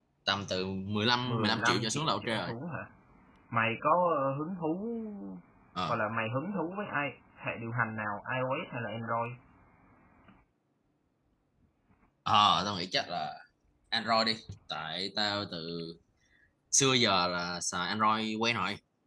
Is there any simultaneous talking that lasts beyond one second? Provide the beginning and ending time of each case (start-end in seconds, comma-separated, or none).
1.2-2.5